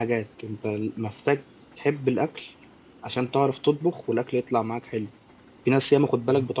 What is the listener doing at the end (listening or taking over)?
listening